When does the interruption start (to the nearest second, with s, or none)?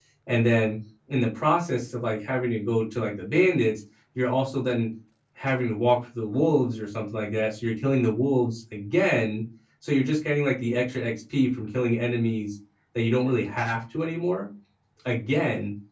none